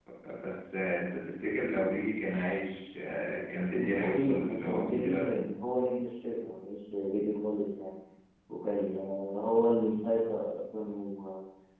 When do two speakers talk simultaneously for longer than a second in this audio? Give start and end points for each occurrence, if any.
3.8-5.5

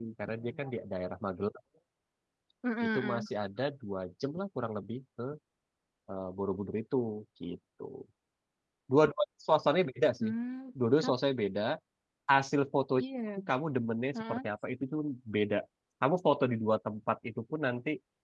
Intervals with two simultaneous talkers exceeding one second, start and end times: none

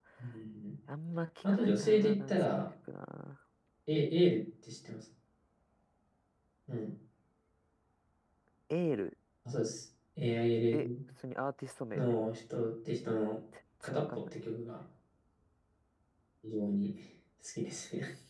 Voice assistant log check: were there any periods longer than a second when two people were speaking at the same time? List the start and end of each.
1.4-2.6

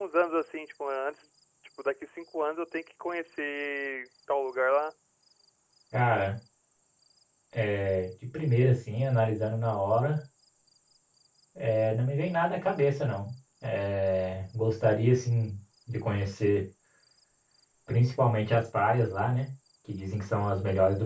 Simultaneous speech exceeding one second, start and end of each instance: none

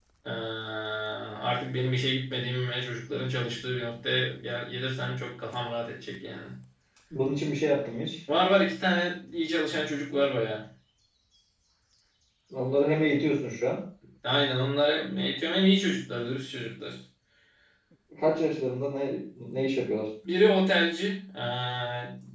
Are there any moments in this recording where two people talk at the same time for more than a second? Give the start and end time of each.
none

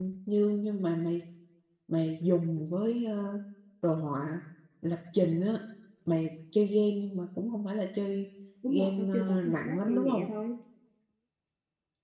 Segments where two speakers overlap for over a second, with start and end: 8.7-10.3

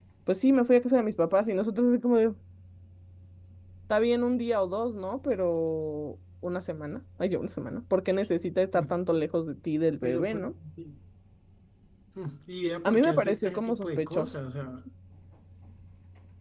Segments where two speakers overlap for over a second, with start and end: 12.8-14.3

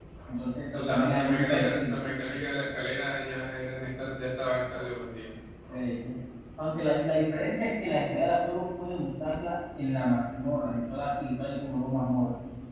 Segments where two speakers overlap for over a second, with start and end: 0.7-2.0

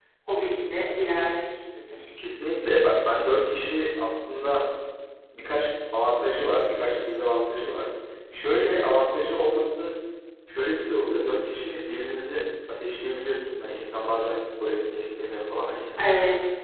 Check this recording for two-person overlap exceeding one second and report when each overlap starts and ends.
none

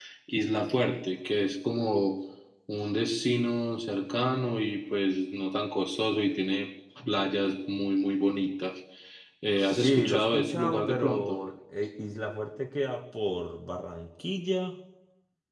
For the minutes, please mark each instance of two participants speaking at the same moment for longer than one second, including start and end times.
9.6-11.4

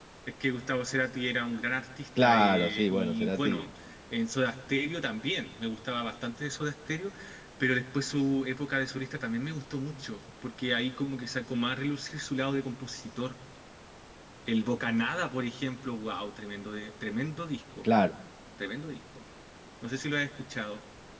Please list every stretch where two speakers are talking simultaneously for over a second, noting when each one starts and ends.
2.2-3.6

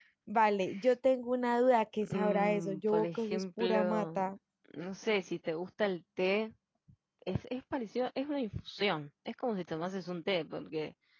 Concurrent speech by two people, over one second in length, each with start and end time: 2.0-4.2

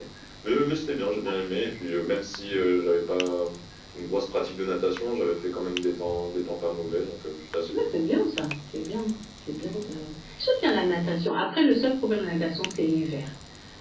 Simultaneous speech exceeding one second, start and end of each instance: none

